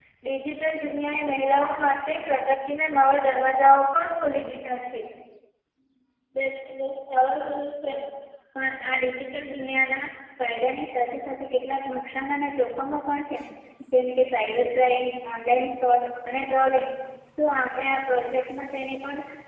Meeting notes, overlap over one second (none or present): none